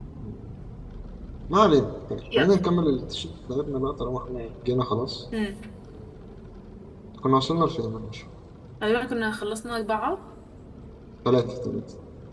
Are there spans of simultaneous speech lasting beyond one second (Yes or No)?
No